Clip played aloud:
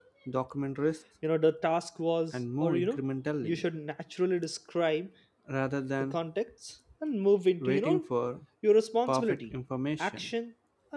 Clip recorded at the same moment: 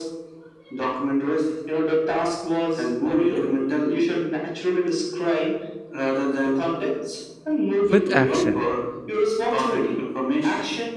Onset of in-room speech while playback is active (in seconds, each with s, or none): 7.9 s